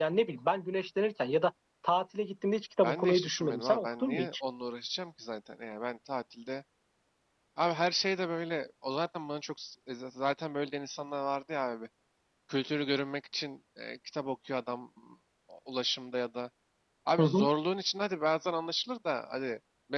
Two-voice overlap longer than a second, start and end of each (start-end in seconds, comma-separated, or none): 2.8-4.3